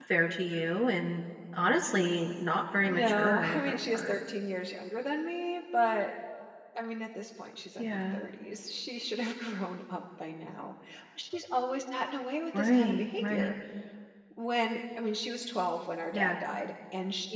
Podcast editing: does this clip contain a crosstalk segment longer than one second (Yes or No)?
Yes